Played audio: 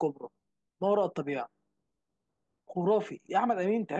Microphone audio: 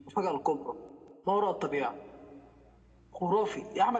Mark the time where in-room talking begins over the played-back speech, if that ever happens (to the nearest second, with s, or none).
none